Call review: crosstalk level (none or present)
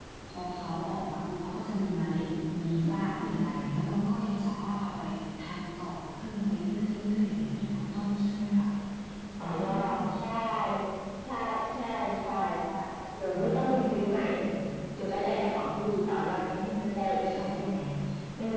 present